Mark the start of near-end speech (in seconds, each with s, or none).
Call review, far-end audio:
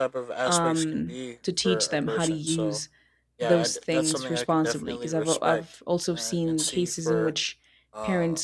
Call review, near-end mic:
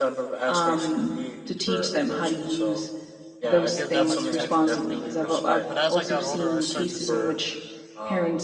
3.7 s